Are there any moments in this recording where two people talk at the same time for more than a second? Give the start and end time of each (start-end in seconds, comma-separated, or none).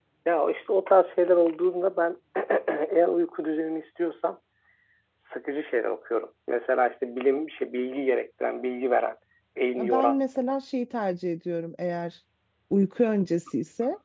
none